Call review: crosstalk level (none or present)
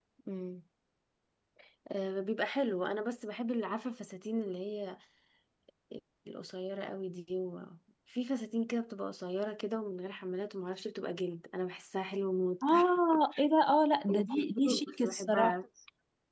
present